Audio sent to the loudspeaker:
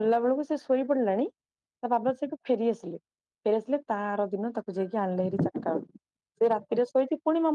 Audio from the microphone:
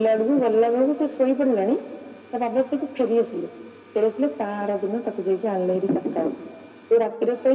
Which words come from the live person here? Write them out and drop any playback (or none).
none